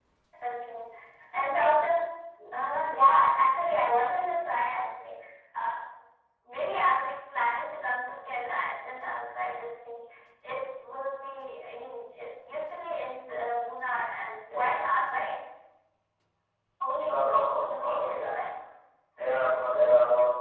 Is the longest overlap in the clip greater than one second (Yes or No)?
Yes